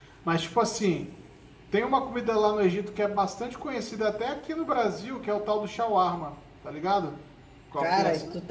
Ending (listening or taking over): taking over